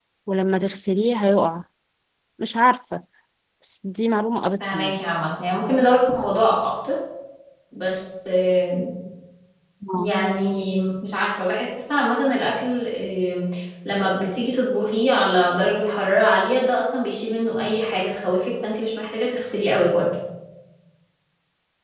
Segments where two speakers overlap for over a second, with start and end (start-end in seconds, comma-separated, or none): none